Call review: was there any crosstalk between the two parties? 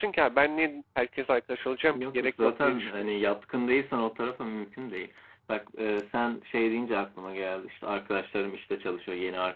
Yes, from 1.9 s

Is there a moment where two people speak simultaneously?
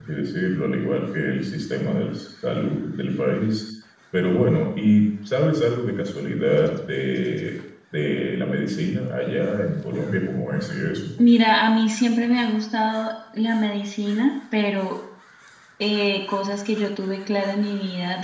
No

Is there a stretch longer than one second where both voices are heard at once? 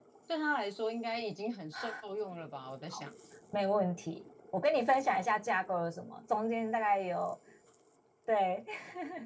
No

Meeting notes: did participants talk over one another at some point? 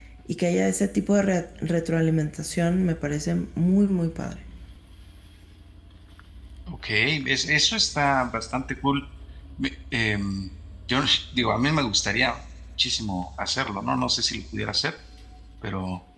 No

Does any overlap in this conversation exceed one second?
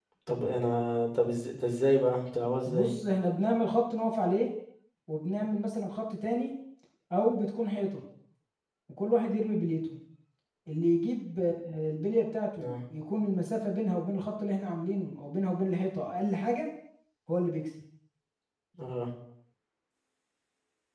No

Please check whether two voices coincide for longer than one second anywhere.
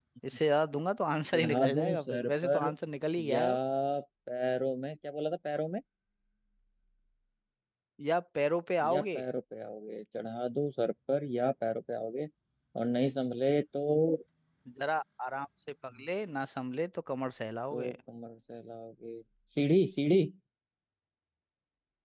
Yes, from 1.3 s

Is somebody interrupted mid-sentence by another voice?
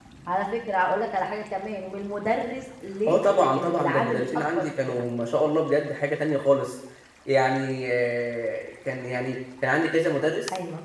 Yes, from 3.1 s

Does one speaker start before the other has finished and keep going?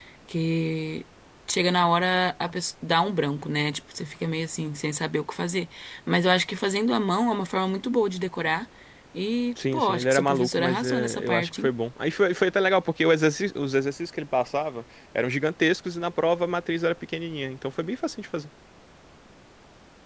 Yes, from 9.7 s

